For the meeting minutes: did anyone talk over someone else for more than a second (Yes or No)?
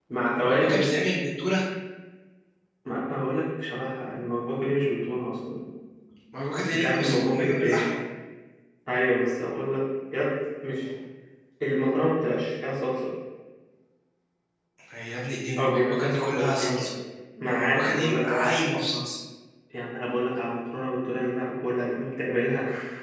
Yes